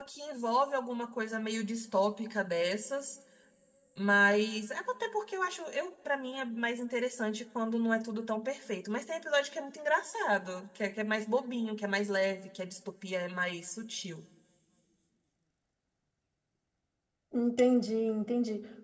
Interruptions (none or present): none